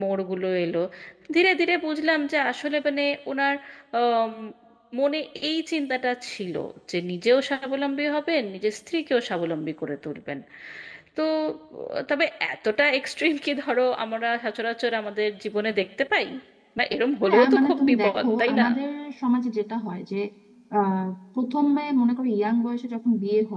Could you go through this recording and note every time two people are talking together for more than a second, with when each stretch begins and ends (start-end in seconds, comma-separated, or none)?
17.2-18.6